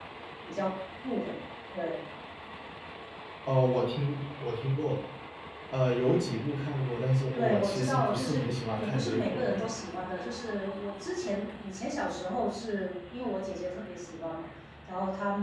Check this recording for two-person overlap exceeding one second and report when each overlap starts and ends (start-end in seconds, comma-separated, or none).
7.3-9.7